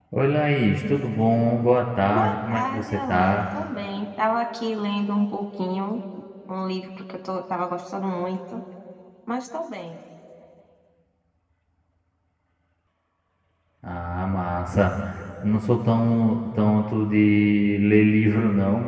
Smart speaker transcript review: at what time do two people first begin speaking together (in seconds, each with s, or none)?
2.1 s